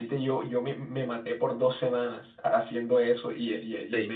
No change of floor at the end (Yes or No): Yes